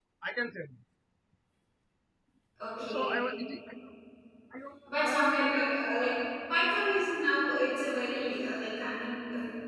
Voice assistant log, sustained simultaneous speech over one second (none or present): none